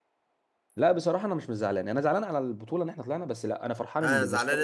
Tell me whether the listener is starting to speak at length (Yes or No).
Yes